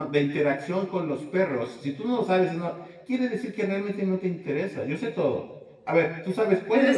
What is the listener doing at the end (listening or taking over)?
taking over